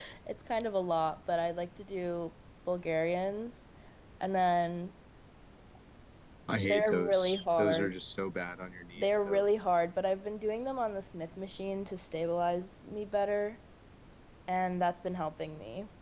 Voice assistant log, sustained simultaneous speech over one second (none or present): present